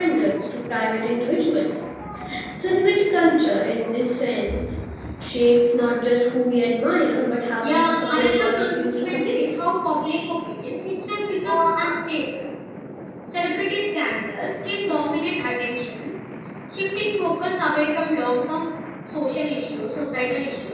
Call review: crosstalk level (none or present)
present